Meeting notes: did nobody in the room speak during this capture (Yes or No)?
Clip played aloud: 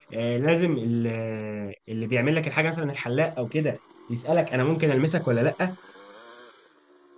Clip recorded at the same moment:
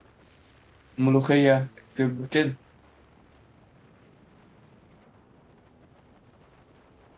No